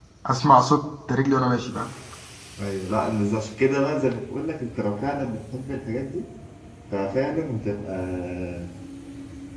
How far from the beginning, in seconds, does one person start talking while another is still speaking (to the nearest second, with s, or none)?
none